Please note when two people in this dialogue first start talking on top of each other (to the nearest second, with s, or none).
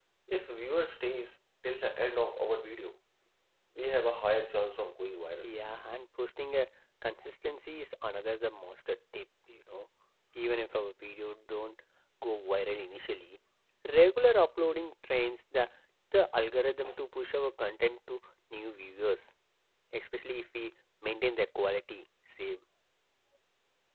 none